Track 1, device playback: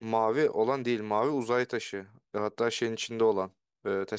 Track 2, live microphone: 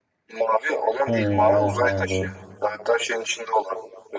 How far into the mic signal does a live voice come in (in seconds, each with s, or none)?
1.1 s